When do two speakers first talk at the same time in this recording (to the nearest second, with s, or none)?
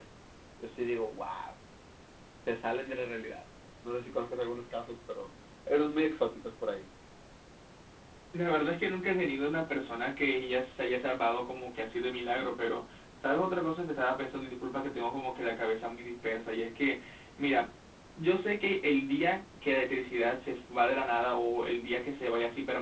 none